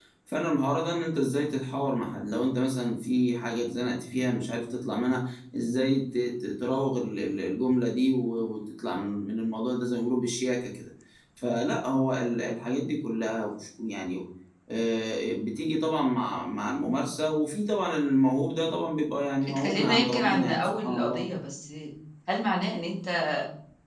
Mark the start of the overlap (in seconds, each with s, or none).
19.4 s